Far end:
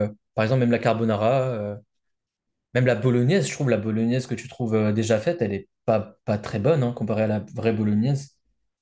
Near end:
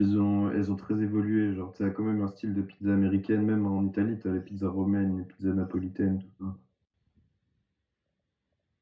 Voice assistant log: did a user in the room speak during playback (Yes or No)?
Yes